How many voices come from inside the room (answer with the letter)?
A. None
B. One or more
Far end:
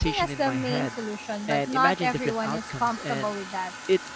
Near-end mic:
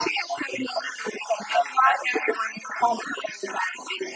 A